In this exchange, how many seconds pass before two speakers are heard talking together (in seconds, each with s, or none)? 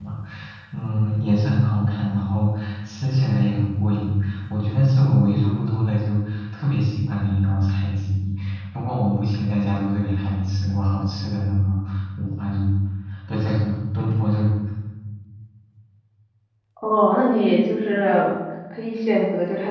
none